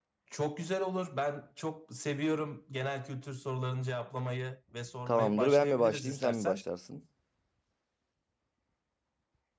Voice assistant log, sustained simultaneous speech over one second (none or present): present